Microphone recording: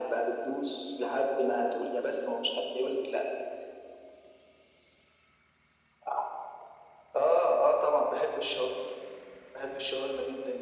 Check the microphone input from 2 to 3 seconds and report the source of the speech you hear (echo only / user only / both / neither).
echo only